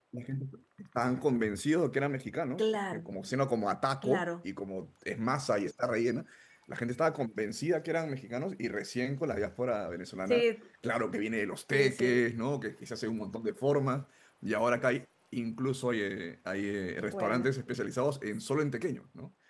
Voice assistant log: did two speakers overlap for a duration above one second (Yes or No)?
No